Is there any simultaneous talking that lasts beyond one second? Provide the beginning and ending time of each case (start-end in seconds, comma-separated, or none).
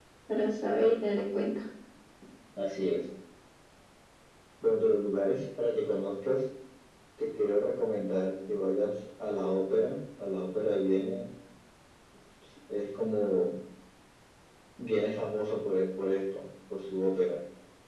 none